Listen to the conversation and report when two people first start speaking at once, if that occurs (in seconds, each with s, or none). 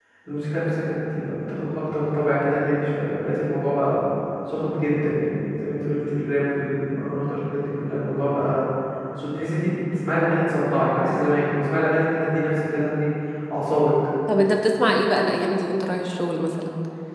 none